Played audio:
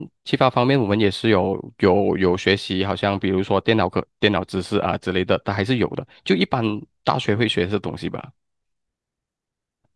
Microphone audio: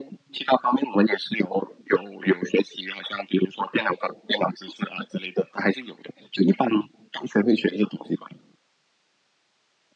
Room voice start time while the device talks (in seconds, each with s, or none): none